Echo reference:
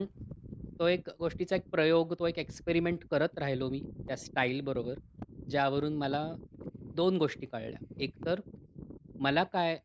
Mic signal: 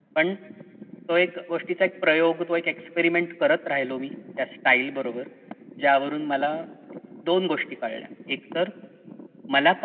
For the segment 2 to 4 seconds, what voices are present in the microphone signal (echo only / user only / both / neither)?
echo only